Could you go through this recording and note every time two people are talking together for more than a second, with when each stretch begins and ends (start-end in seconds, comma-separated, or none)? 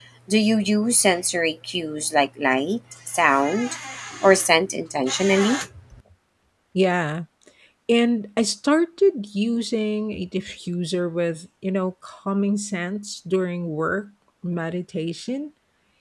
none